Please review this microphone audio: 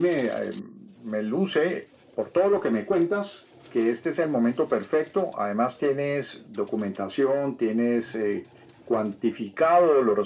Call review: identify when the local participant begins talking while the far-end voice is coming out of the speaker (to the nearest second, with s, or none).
none